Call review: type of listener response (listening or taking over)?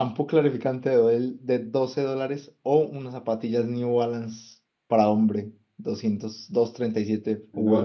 taking over